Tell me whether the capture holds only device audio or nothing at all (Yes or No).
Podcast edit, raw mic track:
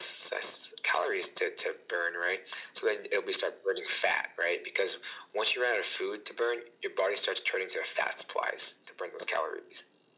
Yes